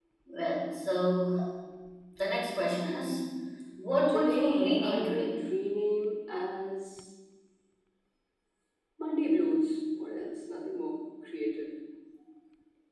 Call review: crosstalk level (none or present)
present